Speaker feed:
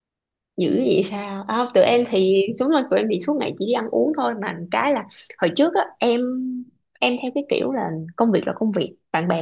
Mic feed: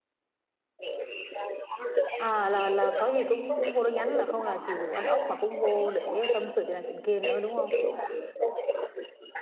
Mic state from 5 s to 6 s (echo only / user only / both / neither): both